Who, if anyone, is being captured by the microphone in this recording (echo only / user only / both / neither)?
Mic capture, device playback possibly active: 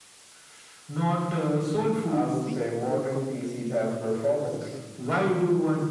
both